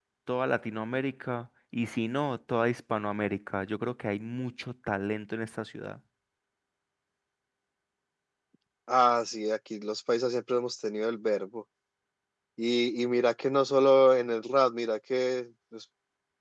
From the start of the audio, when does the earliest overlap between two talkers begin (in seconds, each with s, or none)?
none